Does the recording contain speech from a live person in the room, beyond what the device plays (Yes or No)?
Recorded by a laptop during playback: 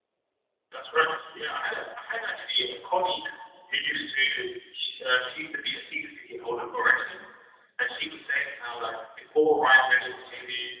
Yes